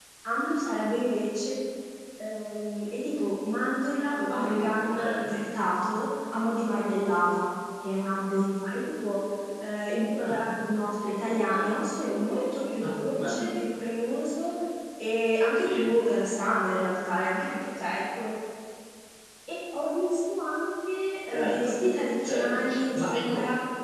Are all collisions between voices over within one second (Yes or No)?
No